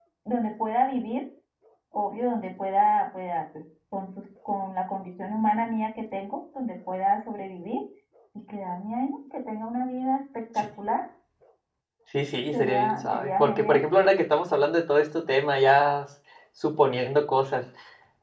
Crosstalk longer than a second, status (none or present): present